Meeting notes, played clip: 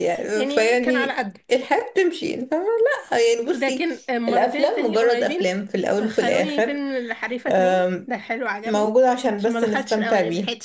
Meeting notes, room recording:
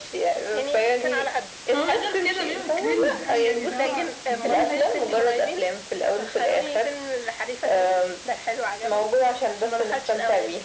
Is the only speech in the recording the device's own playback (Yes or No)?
No